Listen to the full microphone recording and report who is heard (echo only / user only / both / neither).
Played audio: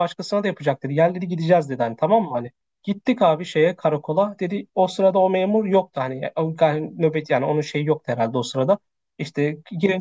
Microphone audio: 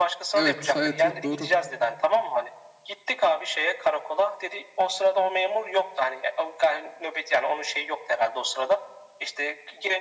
both